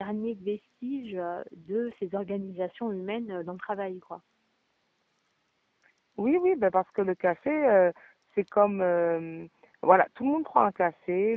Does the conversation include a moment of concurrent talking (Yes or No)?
No